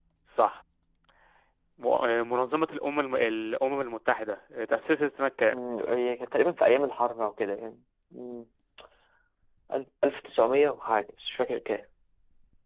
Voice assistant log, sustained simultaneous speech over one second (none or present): none